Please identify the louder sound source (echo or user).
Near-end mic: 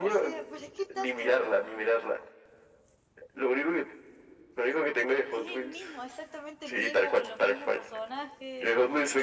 echo